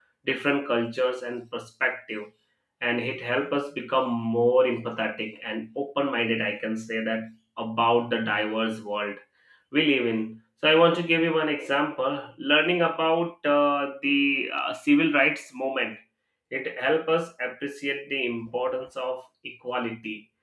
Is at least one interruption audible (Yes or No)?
No